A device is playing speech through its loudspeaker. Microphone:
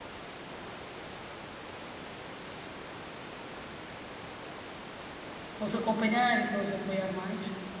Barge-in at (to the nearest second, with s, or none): 6 s